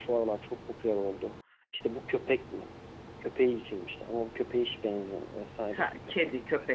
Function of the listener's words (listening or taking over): taking over